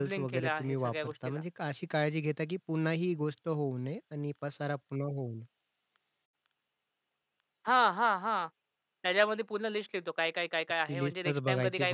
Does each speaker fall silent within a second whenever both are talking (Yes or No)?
No